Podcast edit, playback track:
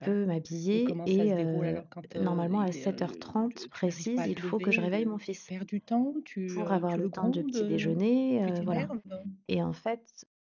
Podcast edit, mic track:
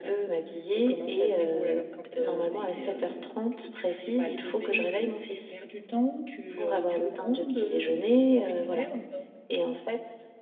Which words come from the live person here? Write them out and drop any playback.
none

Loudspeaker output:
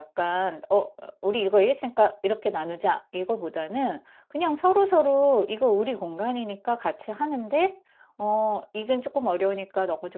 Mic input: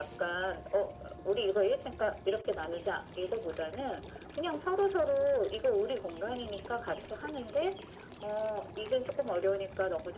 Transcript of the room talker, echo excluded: none

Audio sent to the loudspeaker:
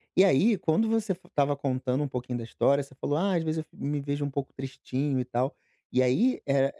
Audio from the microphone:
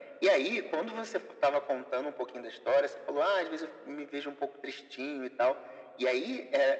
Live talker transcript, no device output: none

